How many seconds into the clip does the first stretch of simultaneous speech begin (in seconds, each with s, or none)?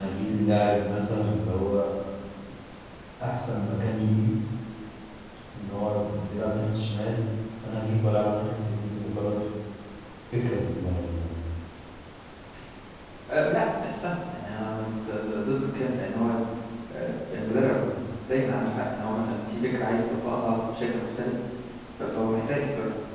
none